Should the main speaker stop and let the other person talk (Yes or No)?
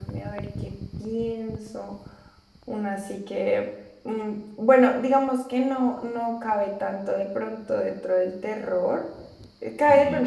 No